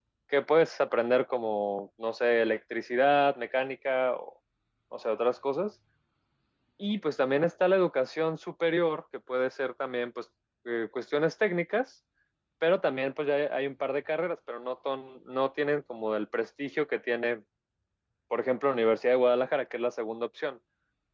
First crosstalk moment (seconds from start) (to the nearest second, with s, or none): none